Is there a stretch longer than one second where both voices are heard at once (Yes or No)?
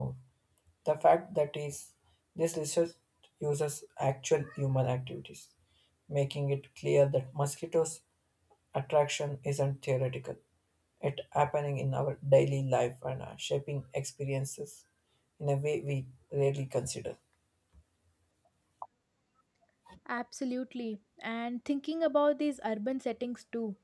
No